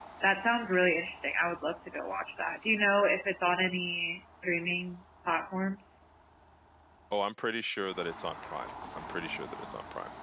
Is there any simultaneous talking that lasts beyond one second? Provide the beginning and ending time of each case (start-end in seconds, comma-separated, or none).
none